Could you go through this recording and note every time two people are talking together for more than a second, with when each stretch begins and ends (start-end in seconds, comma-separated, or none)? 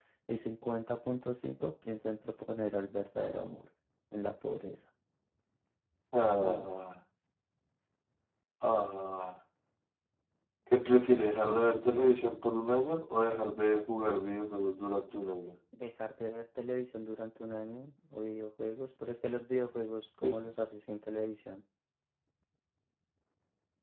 none